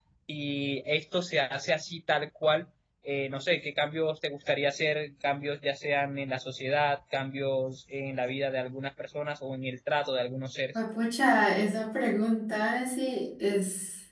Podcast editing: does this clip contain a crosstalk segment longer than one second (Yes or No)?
No